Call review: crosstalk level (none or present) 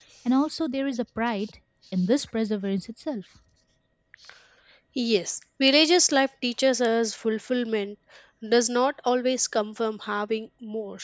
none